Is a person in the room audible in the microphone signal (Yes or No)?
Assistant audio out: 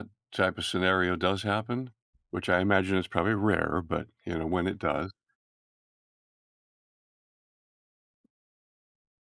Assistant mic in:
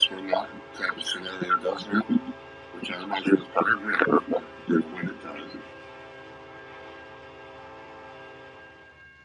No